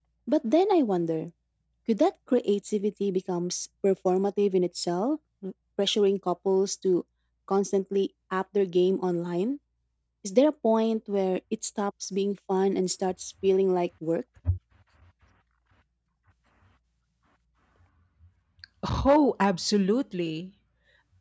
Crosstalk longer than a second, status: none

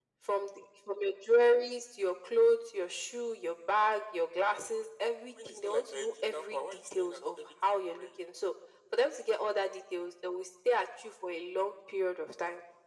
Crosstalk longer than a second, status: present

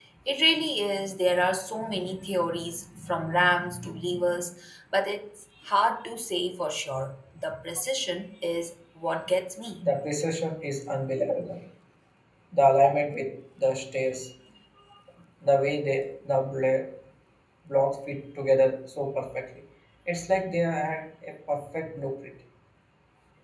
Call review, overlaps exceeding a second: none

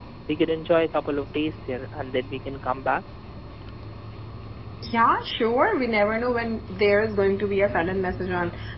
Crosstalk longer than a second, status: none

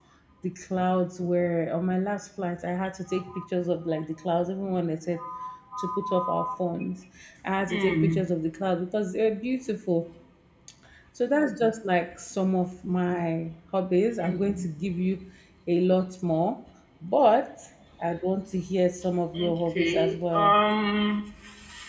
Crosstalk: present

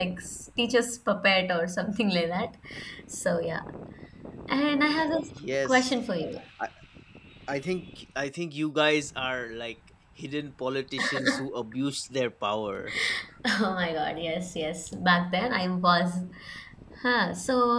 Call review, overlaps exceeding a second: none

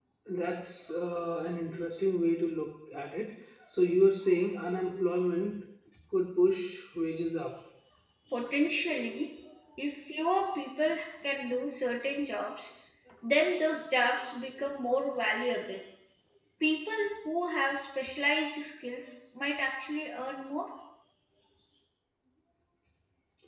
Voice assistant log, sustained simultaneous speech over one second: none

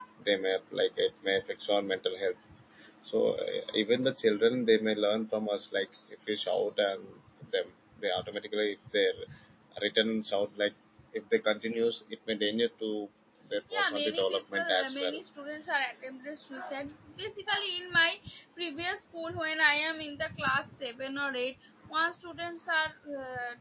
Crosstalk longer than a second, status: present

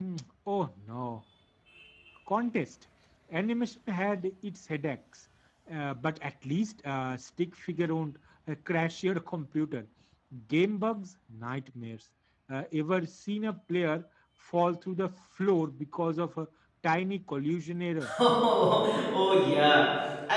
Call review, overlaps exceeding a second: none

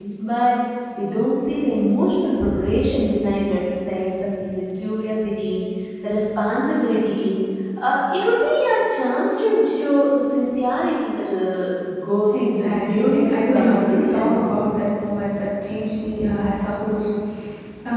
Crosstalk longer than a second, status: present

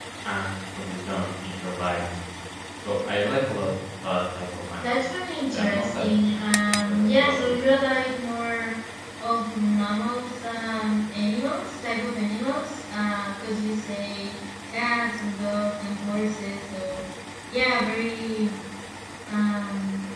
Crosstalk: present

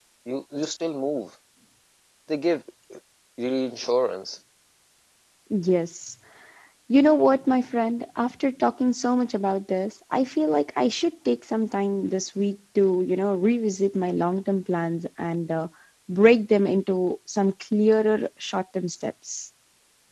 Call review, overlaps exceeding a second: none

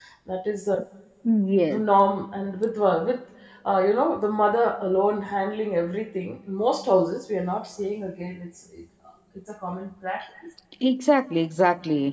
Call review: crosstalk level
none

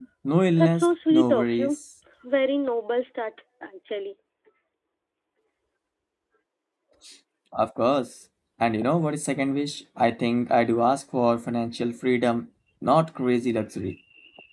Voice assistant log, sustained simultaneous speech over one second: present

